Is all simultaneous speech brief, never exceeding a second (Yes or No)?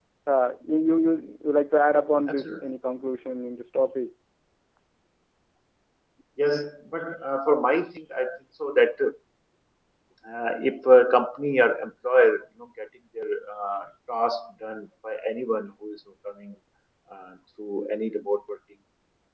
Yes